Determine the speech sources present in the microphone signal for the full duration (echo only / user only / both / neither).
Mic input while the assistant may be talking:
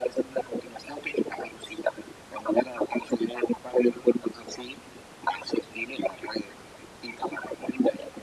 echo only